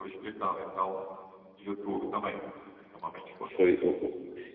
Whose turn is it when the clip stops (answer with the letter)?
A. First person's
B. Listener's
B